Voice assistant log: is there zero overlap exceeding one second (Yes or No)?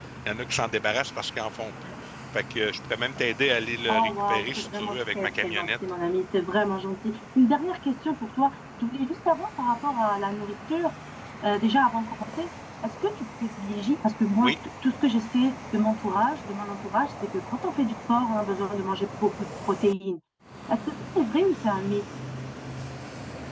No